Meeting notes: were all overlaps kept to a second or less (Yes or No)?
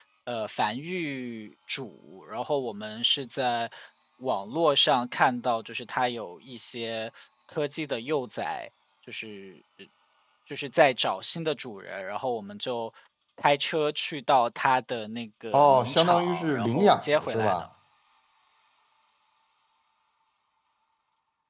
No